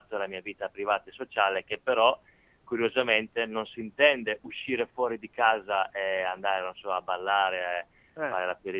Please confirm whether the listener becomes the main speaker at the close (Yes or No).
No